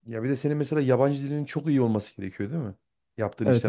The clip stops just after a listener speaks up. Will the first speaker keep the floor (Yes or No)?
No